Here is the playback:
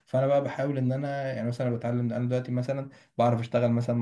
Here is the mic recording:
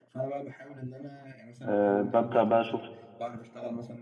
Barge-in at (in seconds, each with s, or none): 1.6 s